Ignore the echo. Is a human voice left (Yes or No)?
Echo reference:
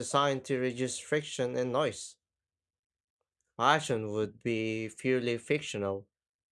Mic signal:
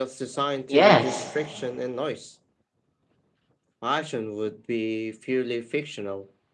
Yes